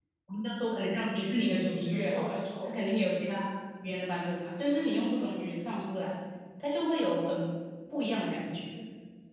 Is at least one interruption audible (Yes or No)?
Yes